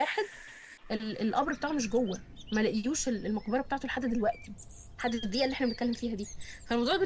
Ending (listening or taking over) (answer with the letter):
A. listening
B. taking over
A